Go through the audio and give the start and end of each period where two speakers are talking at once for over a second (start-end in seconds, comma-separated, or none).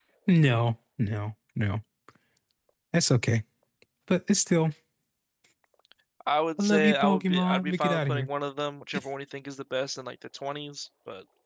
6.6-8.3